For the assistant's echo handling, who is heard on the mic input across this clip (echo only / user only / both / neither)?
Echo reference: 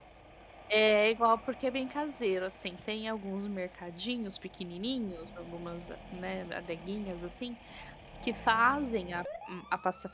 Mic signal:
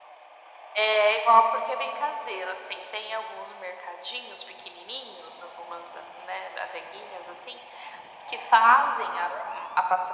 echo only